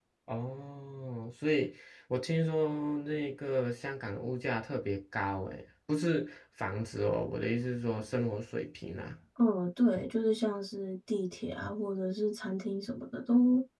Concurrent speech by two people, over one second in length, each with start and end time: none

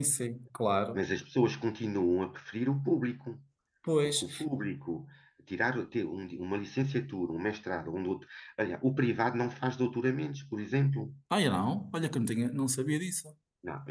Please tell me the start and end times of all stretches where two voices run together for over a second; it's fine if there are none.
none

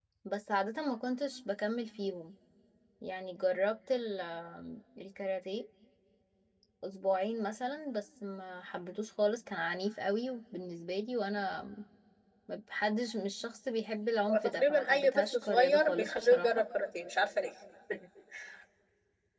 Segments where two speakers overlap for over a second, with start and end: 14.3-16.6

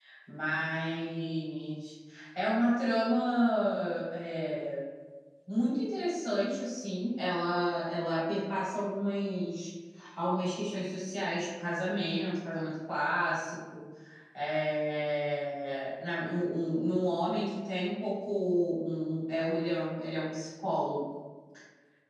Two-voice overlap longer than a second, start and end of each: none

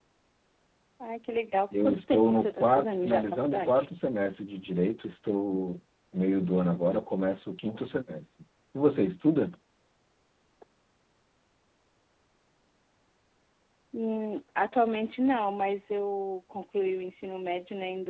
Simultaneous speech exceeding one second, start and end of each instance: 1.8-3.9

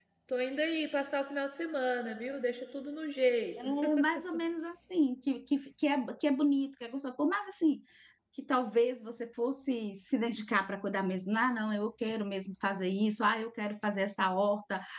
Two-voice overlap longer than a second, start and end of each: none

